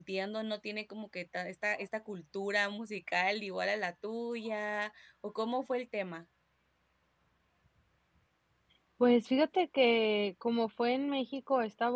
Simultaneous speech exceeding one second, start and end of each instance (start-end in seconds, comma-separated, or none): none